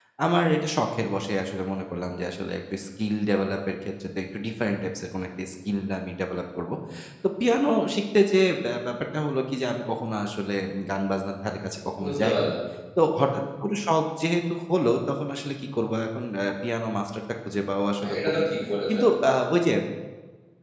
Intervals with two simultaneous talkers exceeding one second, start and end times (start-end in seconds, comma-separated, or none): none